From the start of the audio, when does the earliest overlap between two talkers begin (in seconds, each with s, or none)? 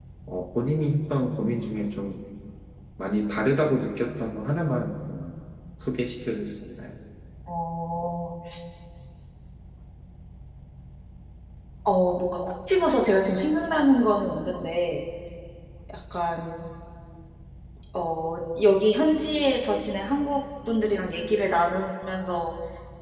none